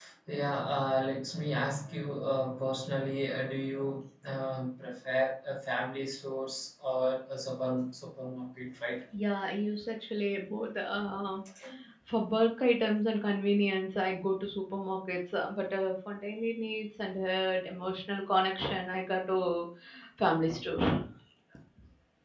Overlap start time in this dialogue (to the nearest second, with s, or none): none